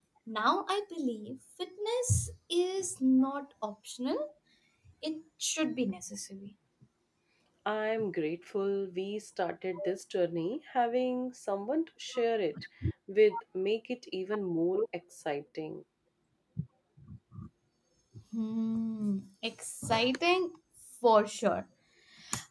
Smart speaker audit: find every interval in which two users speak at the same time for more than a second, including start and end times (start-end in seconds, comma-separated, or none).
none